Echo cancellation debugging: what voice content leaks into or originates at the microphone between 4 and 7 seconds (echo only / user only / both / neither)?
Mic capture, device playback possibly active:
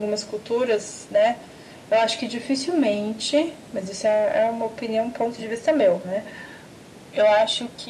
echo only